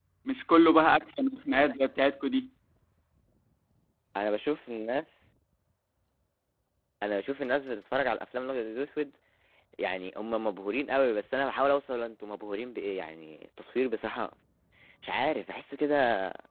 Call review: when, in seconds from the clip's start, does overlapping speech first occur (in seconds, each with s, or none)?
none